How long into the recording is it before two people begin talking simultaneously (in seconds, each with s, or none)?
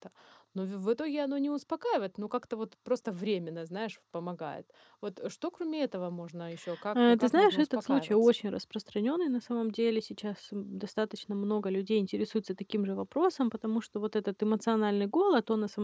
7.0 s